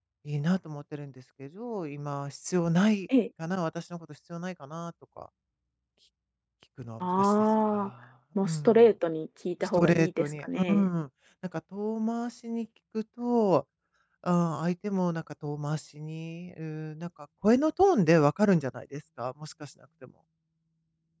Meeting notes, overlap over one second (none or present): present